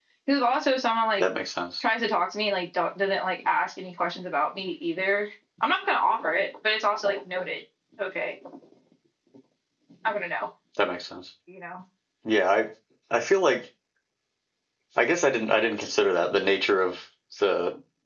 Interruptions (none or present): none